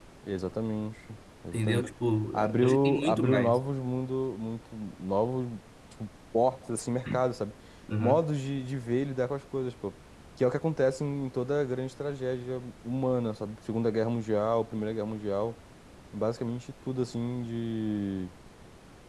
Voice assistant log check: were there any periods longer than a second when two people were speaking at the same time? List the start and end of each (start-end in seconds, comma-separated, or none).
2.3-3.6